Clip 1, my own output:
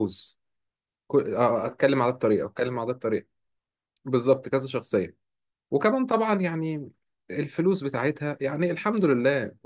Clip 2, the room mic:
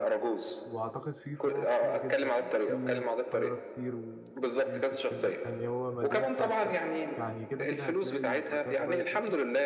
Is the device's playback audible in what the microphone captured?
Yes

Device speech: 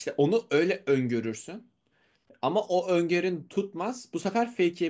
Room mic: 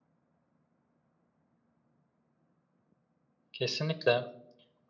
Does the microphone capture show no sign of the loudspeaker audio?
Yes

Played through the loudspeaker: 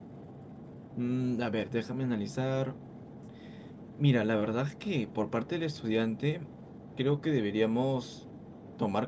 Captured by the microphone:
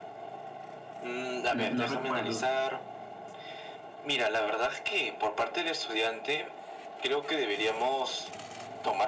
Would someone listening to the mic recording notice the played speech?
Yes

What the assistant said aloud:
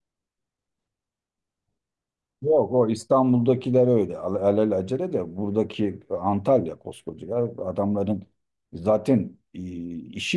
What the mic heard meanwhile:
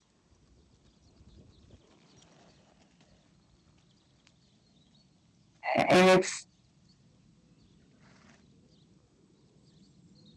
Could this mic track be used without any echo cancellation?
Yes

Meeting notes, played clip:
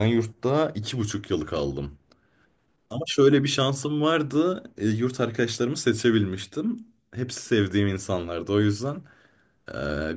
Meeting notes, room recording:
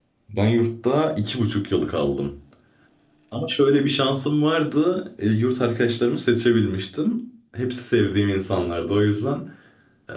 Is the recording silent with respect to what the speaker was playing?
No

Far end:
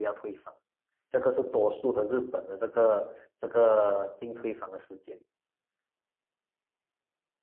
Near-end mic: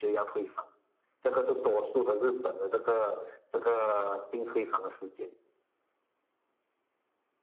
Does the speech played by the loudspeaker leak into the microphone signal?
Yes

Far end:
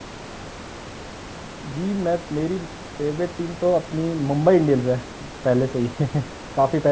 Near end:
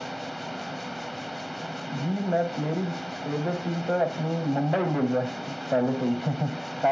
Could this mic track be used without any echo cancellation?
No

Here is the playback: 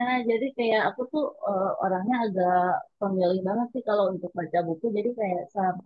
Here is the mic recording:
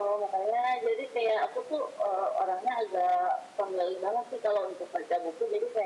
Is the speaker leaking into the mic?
Yes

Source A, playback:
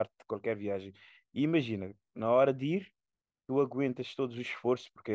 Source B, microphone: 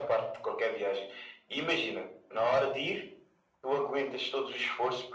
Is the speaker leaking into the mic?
Yes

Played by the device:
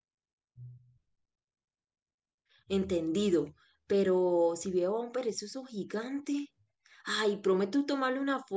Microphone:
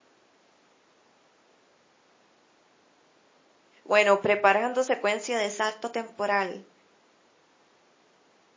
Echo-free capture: Yes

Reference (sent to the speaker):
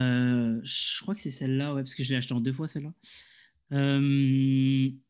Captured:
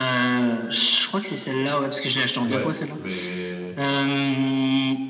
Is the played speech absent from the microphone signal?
No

